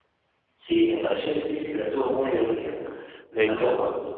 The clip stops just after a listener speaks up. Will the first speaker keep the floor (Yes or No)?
No